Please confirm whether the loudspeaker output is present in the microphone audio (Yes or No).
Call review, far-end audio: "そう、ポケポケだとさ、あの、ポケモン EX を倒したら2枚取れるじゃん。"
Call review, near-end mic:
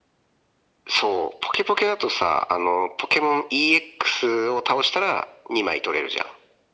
Yes